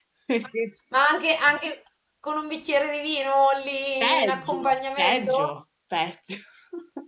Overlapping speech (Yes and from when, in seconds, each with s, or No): Yes, from 4.0 s